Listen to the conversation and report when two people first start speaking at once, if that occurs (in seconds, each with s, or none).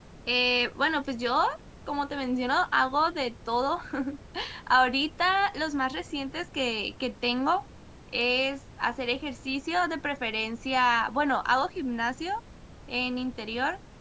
none